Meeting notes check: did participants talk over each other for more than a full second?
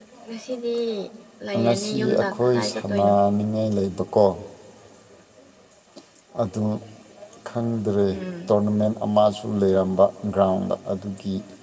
Yes, from 1.6 s

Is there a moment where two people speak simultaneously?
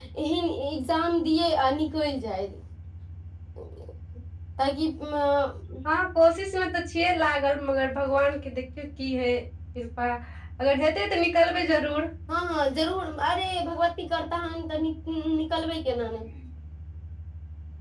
No

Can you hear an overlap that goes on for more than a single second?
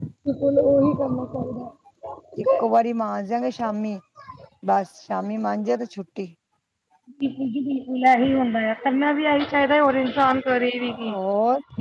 No

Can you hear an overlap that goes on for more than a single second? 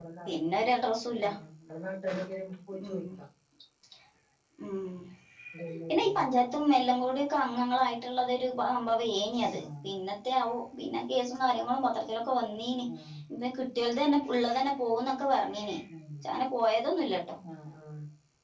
No

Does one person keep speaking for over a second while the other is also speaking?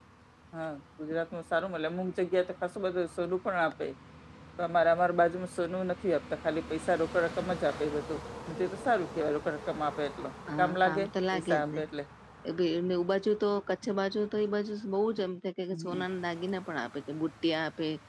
Yes, from 10.6 s

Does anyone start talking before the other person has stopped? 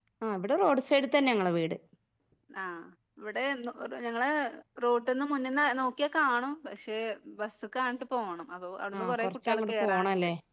Yes, from 8.9 s

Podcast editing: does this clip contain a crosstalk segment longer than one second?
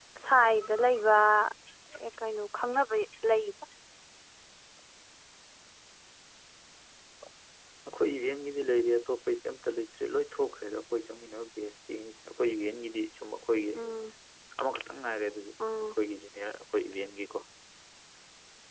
No

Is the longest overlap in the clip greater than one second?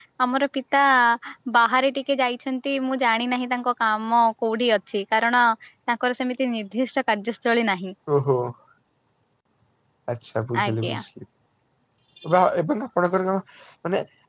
No

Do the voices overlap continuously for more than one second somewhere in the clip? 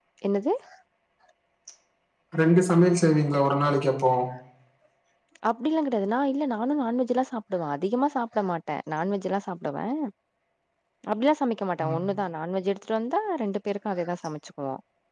No

